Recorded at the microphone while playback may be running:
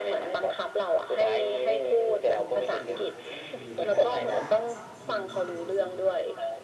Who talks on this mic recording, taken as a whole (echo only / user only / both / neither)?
both